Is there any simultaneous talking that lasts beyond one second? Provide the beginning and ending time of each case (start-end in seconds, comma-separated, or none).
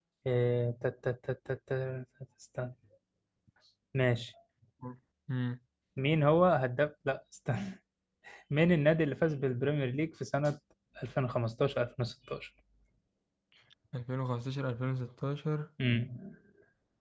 none